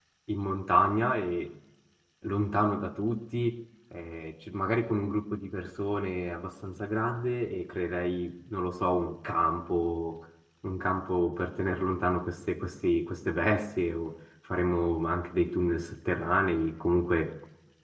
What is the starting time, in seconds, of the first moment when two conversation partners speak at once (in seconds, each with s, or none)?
none